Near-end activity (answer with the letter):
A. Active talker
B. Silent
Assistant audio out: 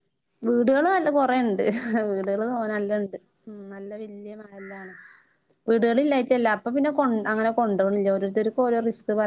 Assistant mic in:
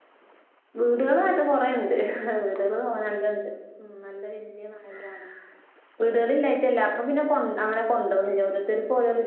B